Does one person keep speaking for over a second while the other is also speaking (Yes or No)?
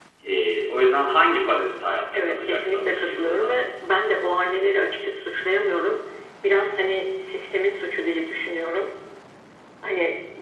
Yes